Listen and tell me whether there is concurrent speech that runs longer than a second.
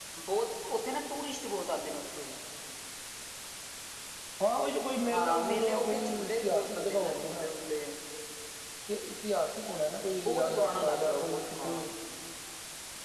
Yes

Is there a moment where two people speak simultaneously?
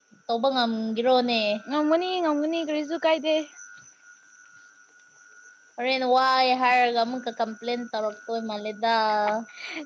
No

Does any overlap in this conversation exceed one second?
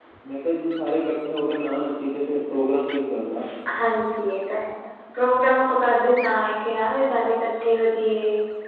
No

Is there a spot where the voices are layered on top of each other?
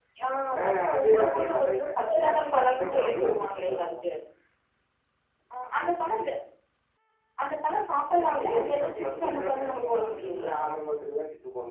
Yes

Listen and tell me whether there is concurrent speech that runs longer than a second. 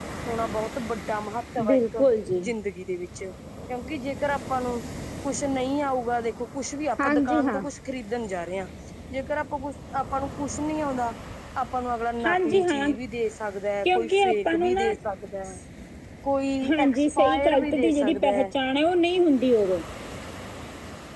Yes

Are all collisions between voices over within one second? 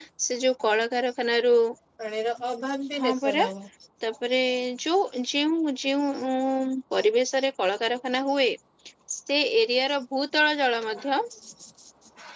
Yes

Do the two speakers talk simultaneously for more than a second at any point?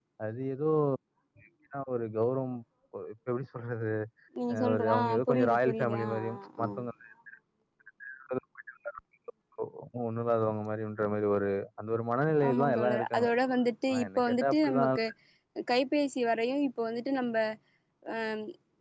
Yes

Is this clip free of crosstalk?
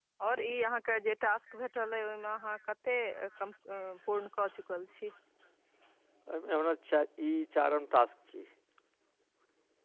Yes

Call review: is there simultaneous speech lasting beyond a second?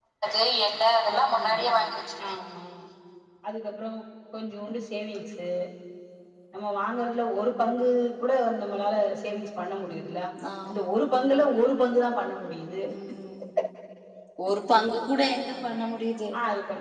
No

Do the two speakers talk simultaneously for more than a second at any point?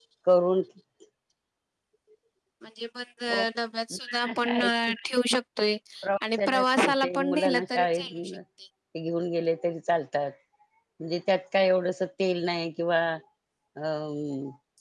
Yes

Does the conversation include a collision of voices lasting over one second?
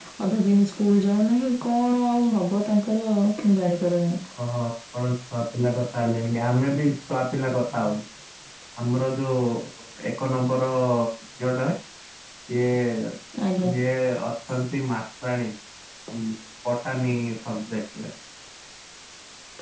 No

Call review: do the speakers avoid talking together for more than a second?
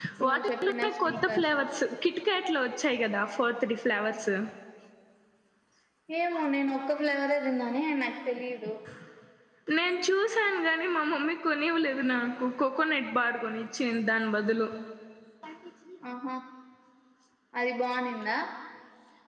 No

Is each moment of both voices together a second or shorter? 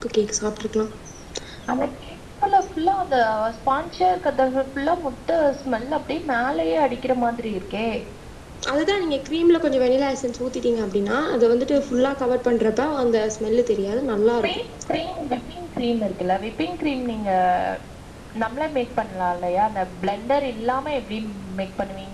Yes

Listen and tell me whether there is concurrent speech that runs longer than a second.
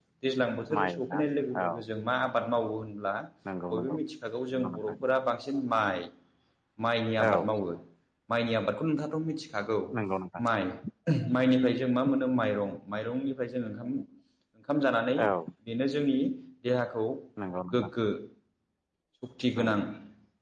No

